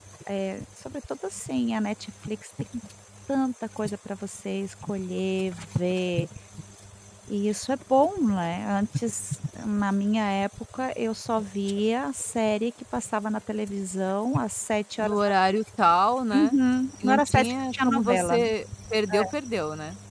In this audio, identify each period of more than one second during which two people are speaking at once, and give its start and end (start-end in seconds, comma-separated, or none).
17.0-18.5